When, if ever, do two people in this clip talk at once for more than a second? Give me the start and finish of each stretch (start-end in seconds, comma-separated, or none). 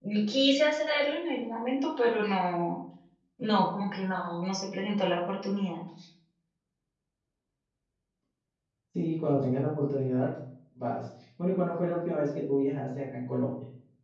none